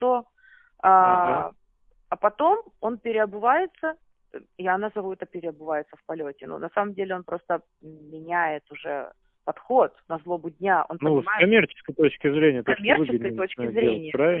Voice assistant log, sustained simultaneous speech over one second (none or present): present